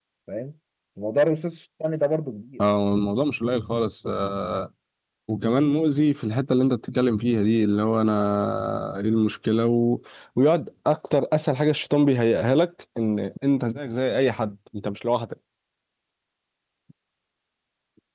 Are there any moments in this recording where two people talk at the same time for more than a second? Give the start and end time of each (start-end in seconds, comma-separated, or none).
none